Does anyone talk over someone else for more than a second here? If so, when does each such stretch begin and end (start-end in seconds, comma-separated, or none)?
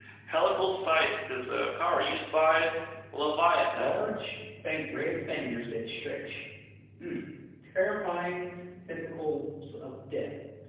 none